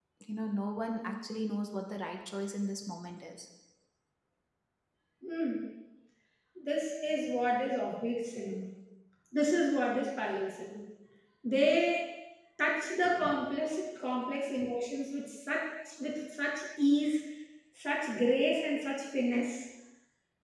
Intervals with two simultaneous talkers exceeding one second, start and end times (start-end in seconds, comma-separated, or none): none